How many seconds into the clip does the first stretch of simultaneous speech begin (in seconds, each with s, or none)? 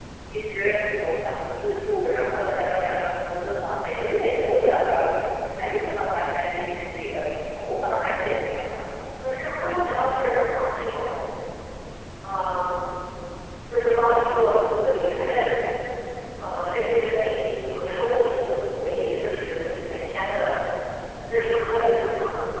none